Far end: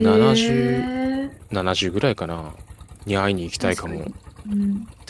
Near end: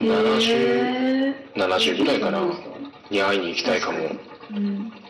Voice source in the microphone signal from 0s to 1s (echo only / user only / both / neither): echo only